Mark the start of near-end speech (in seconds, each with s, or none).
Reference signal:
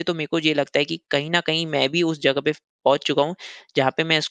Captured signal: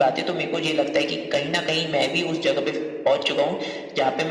none